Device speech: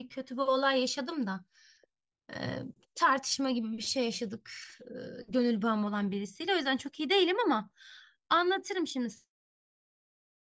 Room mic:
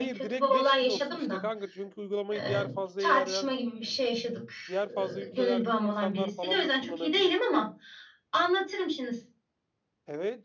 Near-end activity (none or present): present